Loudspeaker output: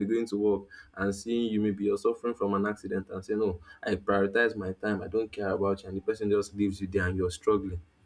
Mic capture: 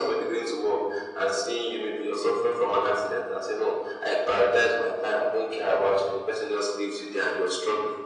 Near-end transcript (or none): none